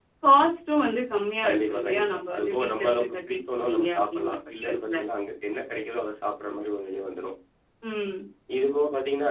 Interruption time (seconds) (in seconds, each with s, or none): 1.4 s